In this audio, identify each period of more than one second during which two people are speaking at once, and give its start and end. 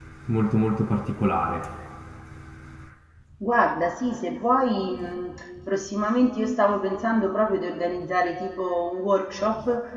none

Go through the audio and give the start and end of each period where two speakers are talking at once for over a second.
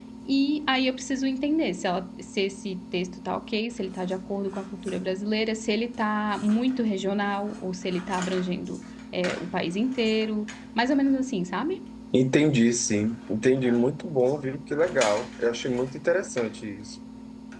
none

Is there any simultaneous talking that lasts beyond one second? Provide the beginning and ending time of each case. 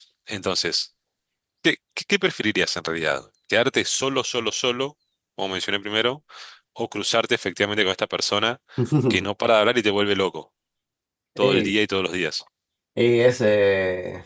none

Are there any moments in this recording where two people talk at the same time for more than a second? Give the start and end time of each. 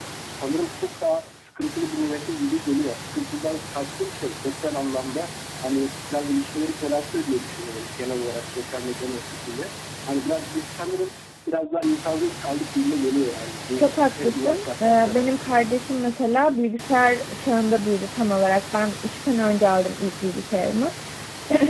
13.8-15.6

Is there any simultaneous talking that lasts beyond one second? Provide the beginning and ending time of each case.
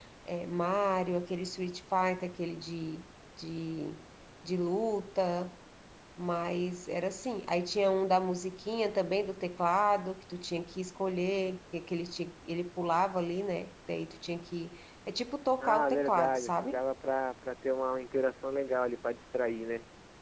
15.6-16.8

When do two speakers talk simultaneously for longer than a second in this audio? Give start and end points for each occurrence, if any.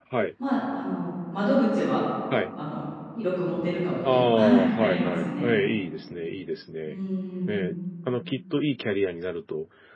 4.1-5.5

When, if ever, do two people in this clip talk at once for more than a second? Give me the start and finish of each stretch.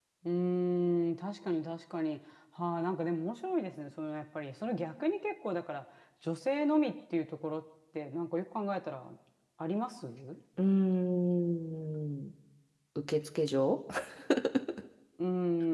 none

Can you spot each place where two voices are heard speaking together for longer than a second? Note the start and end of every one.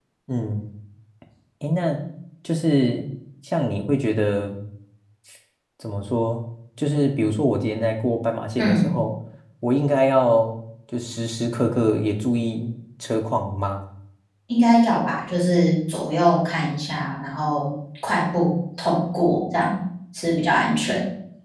none

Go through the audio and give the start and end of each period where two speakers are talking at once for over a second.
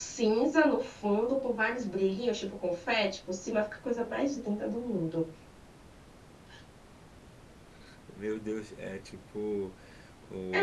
none

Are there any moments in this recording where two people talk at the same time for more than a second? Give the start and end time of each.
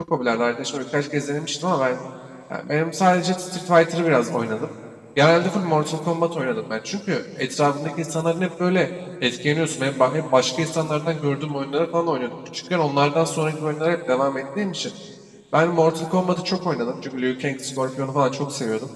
none

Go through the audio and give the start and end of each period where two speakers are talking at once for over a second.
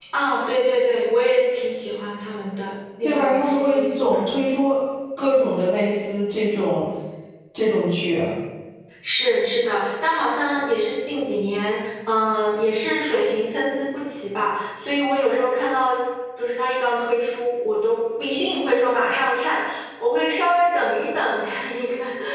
3.0-4.3

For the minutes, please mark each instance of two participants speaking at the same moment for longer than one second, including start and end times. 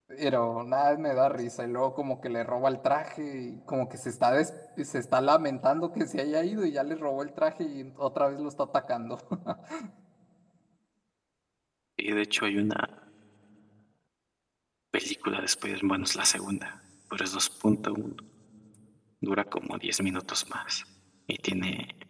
none

